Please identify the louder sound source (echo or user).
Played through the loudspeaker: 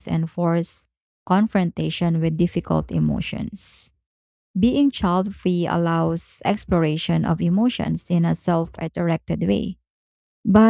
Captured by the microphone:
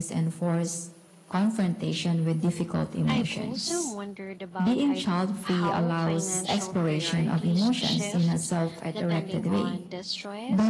echo